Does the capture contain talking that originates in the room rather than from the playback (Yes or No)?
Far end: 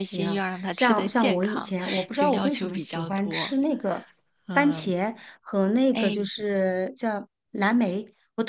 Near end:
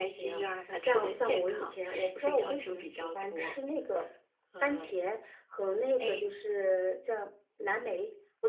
No